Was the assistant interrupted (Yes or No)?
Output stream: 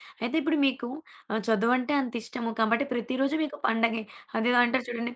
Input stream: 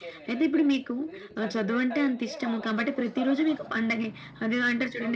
Yes